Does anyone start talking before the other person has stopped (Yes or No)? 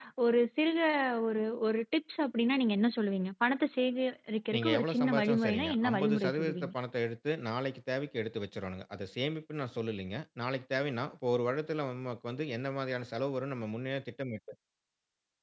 Yes